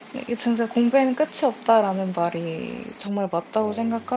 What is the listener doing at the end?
listening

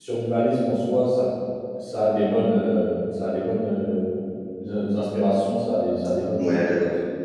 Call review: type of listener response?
taking over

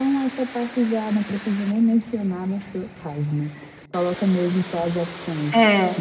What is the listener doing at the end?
taking over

